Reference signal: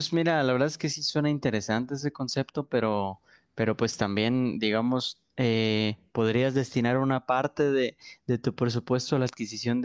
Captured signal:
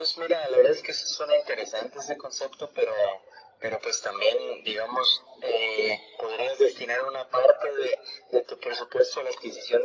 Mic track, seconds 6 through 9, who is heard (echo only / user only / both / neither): echo only